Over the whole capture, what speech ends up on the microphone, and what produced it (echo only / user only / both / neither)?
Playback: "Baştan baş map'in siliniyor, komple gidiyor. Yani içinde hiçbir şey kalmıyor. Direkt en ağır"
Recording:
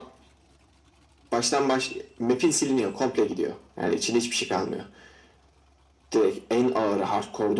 echo only